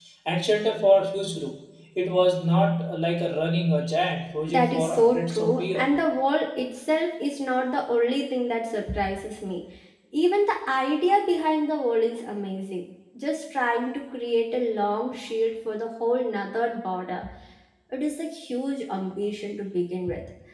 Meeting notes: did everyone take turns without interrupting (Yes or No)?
No